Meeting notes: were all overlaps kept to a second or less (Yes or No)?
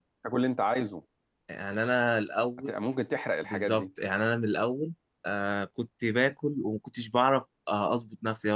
Yes